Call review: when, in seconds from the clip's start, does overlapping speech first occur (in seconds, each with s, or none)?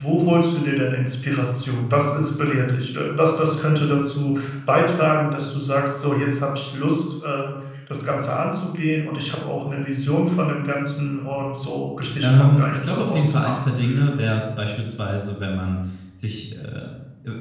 12.2 s